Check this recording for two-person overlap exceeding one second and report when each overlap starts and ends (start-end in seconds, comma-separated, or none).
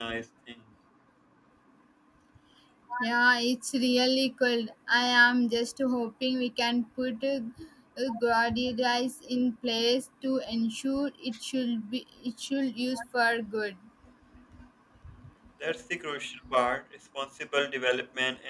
none